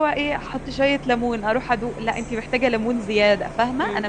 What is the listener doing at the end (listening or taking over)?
taking over